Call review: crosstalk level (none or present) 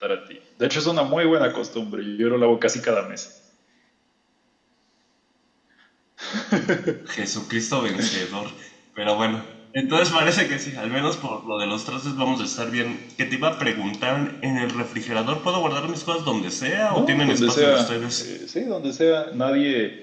present